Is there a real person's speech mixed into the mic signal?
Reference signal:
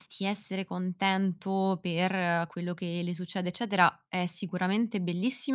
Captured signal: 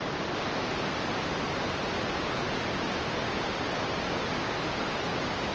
No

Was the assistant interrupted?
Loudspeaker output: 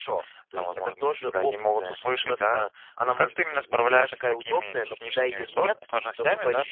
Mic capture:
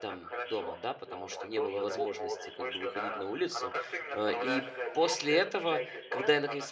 Yes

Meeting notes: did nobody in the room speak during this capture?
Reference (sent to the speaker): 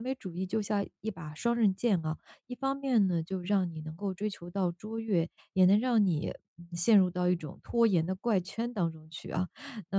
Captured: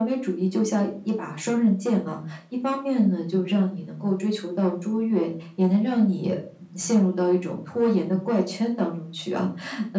Yes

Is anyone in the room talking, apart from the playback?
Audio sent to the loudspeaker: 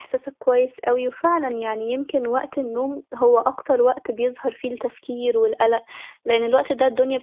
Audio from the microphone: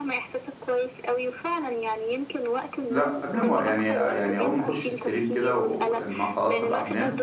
Yes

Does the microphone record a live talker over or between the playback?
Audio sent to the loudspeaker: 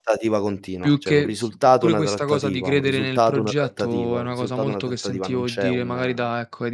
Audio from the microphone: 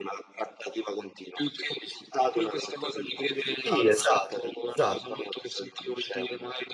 Yes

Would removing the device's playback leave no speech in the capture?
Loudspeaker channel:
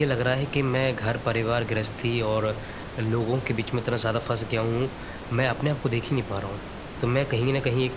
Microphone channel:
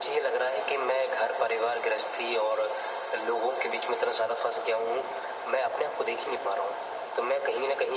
Yes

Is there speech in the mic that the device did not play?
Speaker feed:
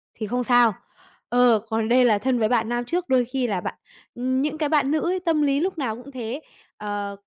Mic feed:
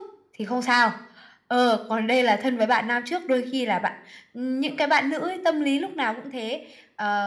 No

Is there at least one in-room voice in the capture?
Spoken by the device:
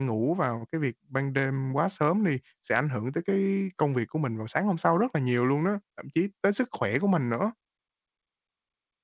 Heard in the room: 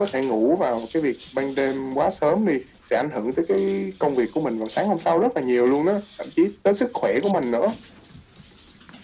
No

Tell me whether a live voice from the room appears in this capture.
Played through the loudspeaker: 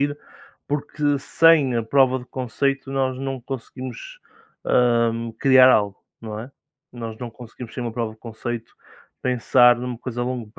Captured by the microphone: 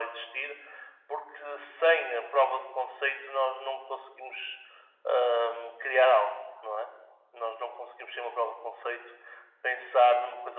No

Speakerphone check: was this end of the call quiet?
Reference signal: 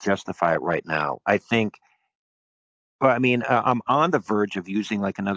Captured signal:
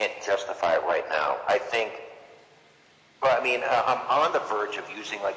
Yes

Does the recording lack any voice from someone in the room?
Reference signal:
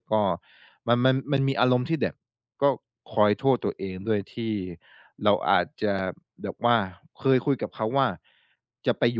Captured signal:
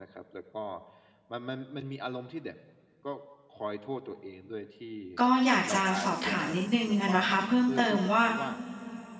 No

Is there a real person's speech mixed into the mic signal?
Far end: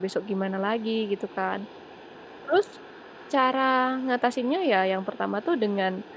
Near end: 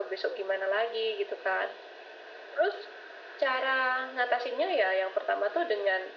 No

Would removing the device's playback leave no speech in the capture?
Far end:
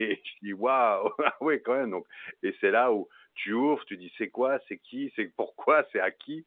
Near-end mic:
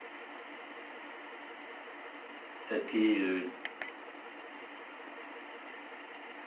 No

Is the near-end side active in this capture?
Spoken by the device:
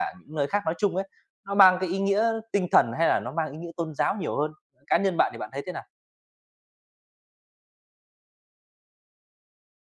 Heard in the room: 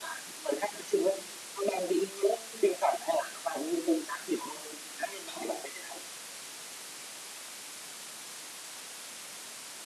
No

